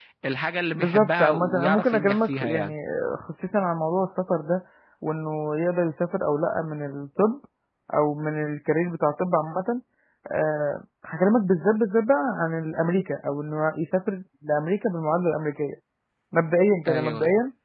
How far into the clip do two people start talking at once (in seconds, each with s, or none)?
0.8 s